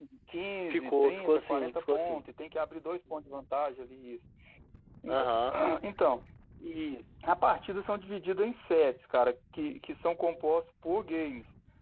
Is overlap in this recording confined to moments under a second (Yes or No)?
No